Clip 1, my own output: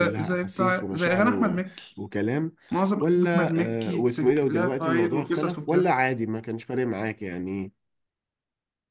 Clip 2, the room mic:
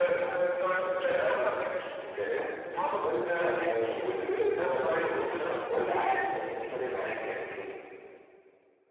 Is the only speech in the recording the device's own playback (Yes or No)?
Yes